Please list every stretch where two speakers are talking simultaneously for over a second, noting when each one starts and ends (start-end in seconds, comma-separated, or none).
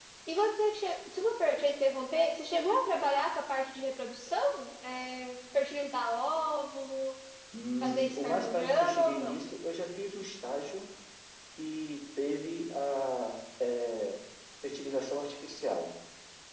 7.8-9.4